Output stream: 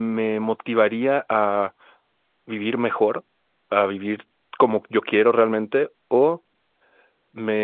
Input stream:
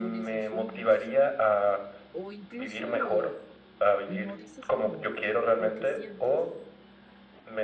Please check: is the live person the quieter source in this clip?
Yes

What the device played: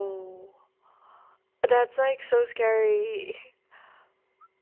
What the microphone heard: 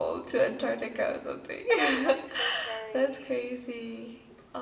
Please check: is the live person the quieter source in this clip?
No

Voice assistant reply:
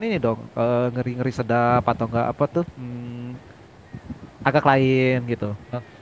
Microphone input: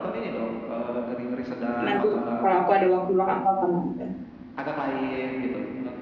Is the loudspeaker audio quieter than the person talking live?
Yes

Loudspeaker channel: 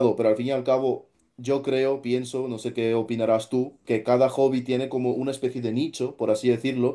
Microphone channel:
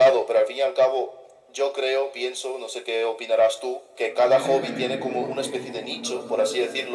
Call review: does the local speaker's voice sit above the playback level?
No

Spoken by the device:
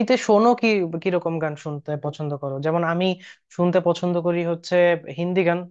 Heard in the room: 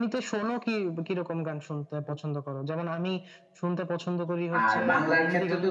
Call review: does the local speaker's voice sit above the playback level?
Yes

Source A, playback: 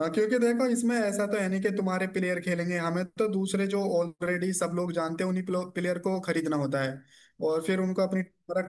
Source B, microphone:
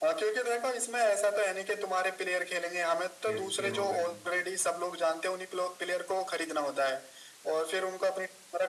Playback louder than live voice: Yes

